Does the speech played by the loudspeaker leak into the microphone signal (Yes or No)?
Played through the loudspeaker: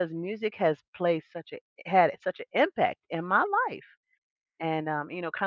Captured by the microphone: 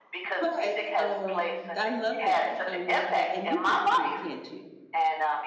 Yes